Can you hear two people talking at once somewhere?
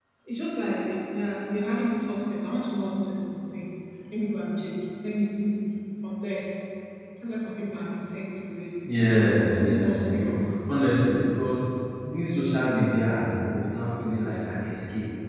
Yes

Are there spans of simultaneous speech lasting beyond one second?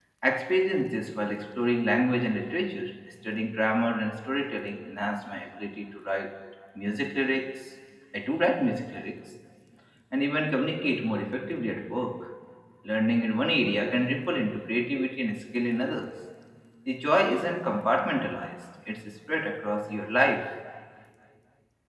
No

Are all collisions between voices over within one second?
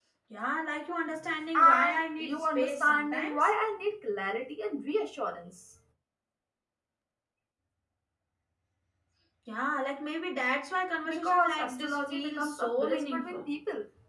No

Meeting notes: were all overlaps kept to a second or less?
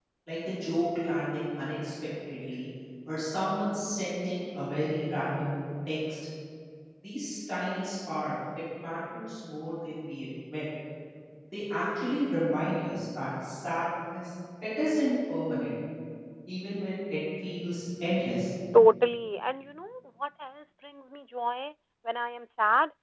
Yes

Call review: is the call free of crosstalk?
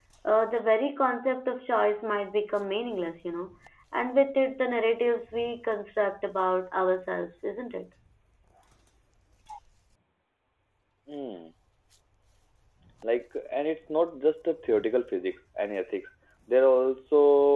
Yes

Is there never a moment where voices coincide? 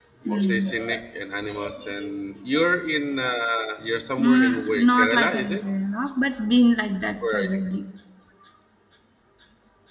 No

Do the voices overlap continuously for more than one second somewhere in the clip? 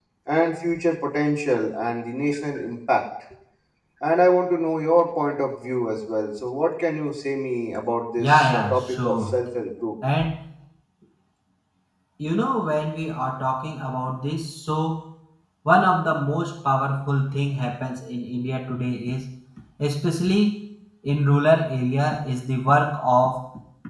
Yes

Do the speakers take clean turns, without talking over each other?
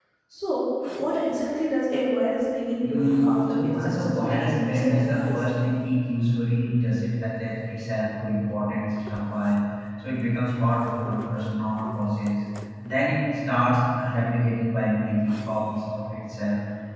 No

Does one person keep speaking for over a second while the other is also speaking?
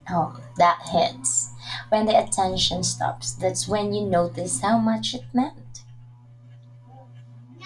No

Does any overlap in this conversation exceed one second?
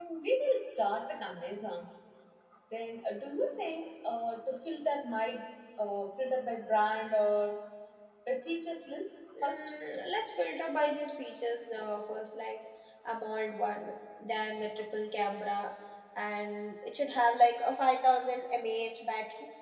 No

